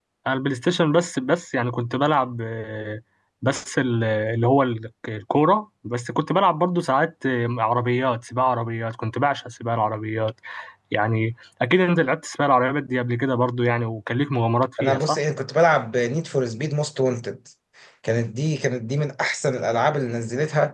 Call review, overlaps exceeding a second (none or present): none